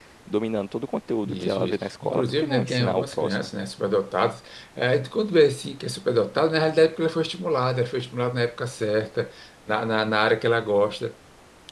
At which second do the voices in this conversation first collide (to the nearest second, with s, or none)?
1 s